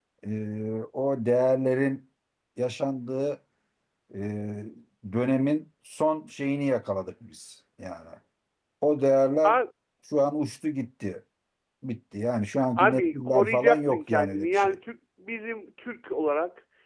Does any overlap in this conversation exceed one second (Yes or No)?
Yes